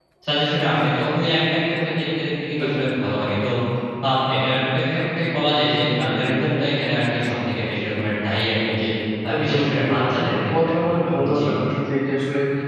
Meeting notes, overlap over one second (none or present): present